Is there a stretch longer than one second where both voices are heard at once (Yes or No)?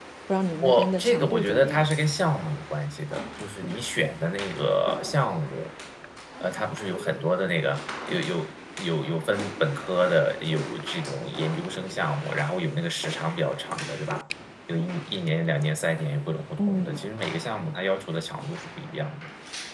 Yes